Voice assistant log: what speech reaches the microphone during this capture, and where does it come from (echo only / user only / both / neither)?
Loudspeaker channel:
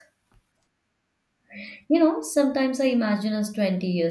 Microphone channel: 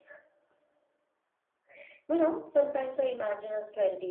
echo only